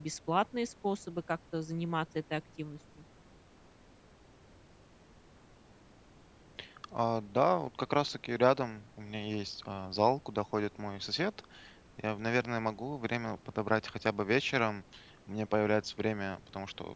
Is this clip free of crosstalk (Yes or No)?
Yes